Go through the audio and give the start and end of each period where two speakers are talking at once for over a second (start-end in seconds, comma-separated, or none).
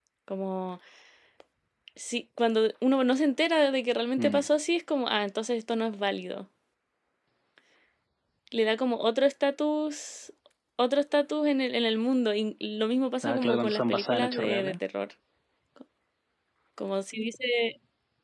13.2-14.8